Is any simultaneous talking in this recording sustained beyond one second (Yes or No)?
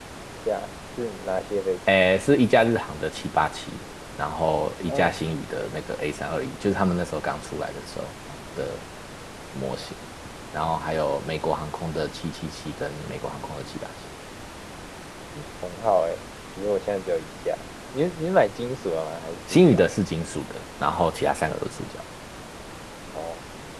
No